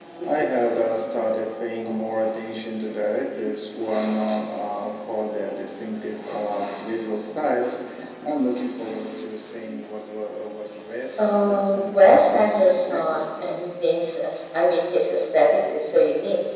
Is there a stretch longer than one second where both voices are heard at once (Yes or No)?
Yes